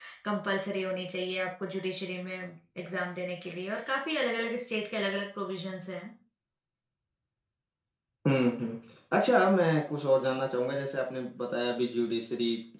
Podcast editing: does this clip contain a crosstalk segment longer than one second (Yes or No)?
No